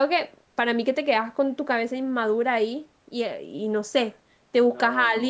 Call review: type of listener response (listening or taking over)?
listening